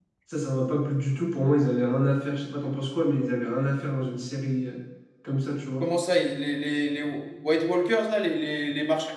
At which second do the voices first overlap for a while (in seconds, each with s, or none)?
none